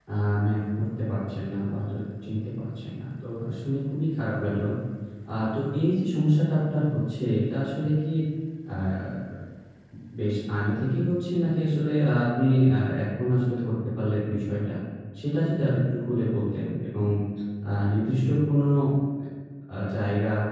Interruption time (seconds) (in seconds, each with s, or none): none